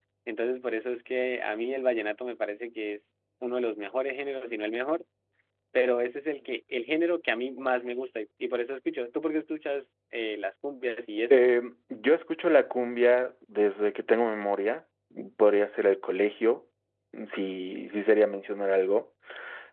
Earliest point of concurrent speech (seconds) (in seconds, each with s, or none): none